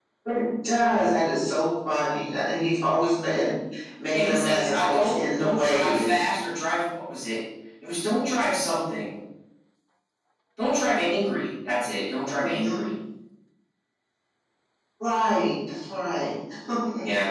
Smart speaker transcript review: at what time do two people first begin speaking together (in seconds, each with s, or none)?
4.1 s